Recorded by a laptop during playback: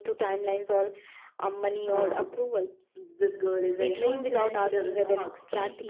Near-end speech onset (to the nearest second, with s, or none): 2 s